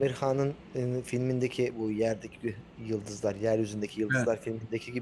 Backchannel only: Yes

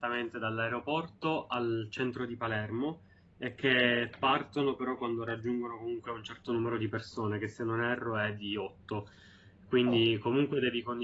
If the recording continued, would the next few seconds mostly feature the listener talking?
No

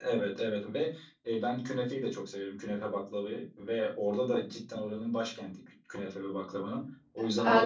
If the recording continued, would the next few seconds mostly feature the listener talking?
Yes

